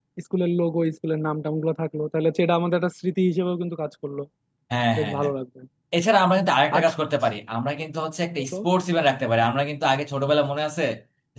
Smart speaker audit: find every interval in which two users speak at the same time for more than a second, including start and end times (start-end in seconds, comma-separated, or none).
none